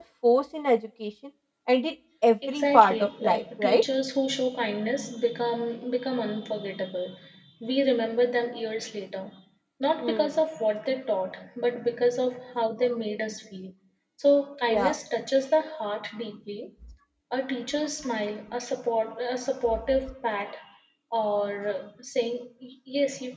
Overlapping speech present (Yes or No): Yes